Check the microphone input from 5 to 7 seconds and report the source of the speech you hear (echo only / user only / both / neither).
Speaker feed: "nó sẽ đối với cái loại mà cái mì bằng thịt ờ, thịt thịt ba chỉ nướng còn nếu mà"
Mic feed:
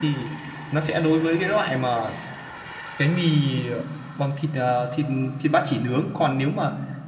echo only